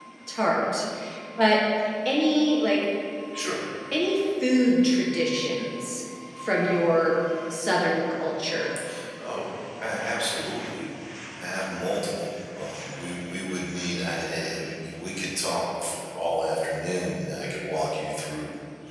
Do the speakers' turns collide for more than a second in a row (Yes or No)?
No